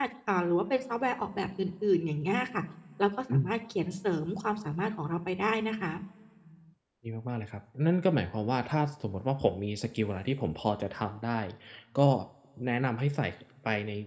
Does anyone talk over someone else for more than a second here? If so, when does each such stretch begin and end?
none

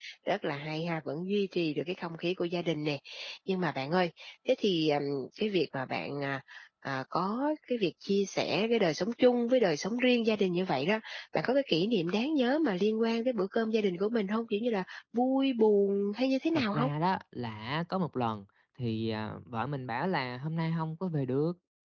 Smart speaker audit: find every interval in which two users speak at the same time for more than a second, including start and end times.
none

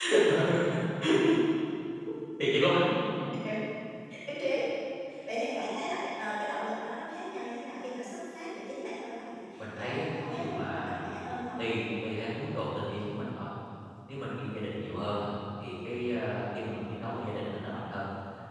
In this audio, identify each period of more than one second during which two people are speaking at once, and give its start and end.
9.6-11.1

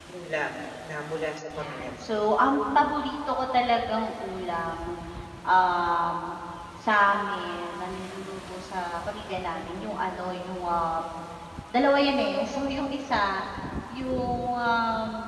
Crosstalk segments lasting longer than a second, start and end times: none

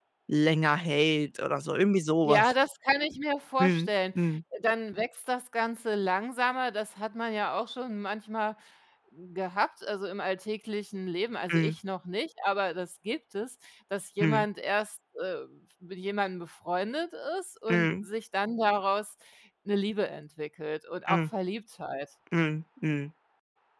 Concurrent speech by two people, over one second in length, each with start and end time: none

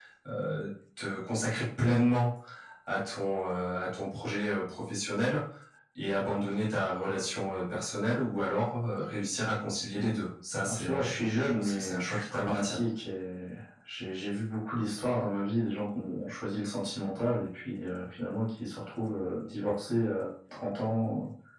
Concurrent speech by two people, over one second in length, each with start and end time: 10.6-12.7

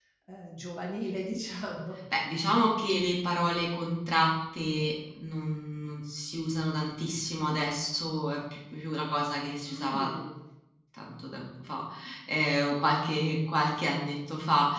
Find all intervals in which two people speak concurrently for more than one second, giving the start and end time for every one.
none

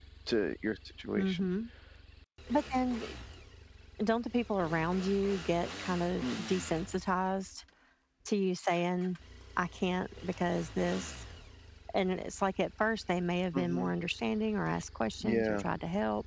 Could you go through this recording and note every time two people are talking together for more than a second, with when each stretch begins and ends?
none

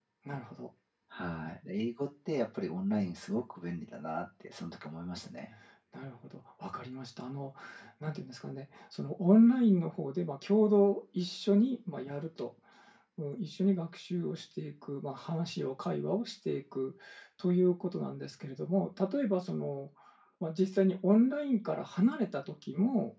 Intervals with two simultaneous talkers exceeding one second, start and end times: none

